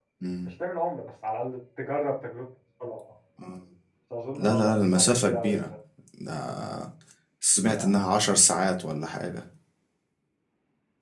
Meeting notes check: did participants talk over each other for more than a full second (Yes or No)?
Yes